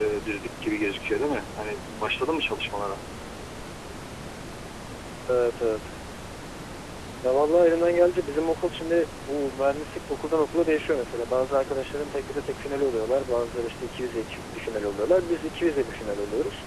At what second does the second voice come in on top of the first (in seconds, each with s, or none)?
none